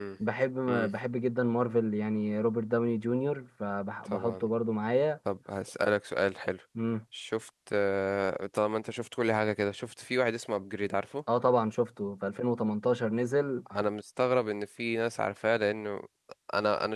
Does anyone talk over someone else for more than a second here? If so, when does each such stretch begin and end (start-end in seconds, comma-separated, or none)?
none